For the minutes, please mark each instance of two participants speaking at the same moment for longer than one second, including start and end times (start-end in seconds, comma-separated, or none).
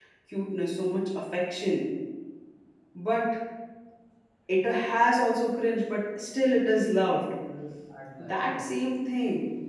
none